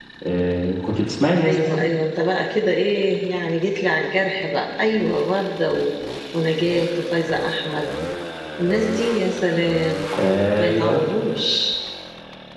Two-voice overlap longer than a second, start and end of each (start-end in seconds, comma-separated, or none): none